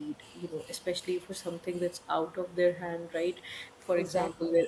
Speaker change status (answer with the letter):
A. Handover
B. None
B